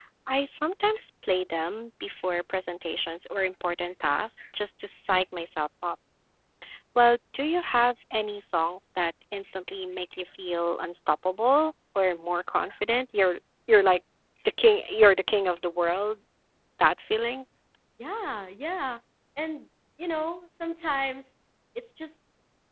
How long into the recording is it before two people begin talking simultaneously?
none

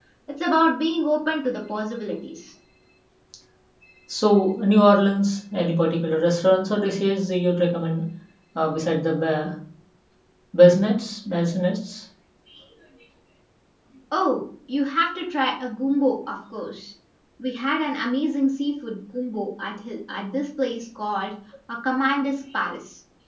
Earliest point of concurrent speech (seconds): none

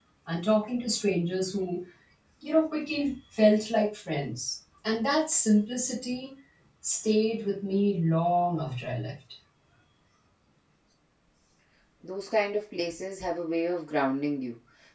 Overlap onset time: none

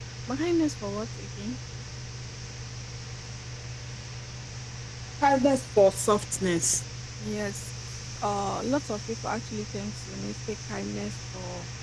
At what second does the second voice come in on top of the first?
none

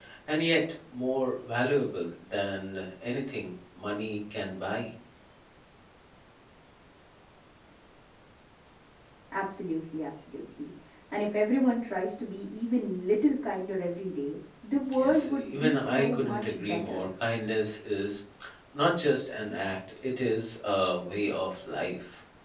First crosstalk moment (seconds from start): 15 s

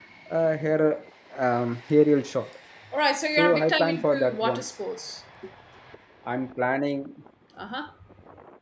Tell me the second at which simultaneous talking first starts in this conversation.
3 s

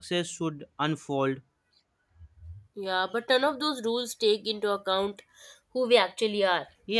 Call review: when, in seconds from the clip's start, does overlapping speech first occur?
none

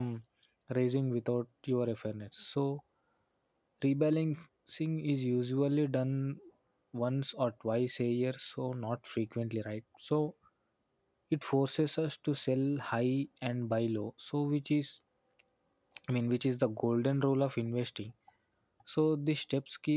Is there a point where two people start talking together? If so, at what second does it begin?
none

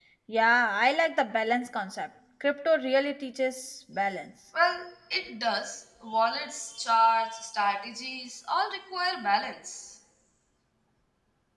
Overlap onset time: none

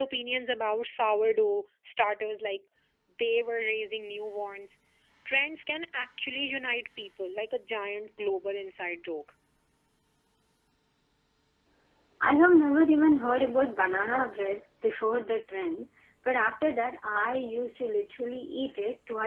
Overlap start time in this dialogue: none

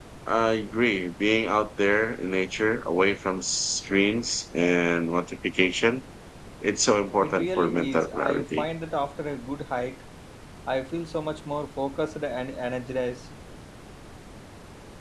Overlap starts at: 7 s

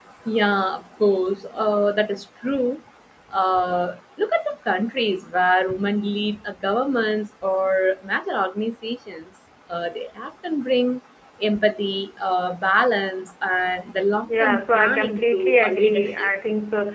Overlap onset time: 14 s

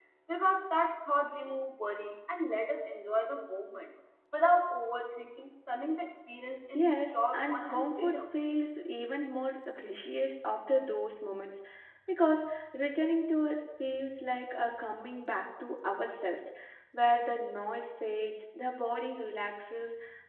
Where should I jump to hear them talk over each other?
7 s

